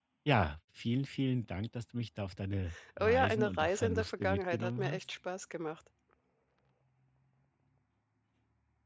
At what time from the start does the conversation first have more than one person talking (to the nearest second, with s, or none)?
3 s